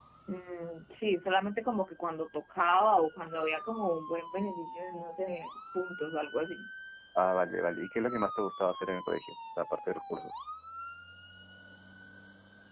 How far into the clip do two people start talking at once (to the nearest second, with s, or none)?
none